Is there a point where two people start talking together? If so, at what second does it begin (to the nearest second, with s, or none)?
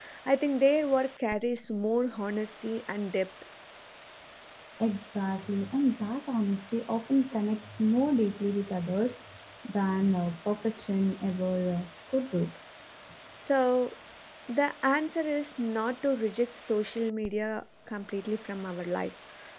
none